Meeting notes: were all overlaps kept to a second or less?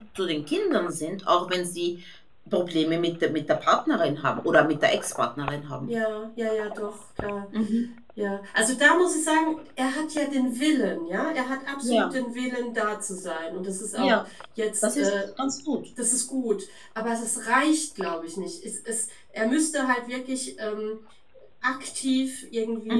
Yes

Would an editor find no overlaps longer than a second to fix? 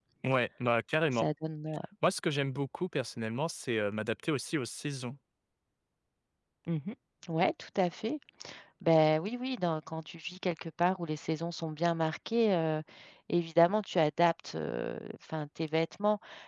Yes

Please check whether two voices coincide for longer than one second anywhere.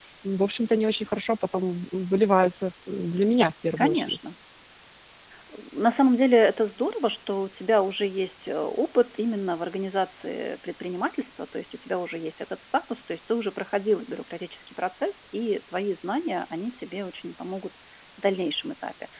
No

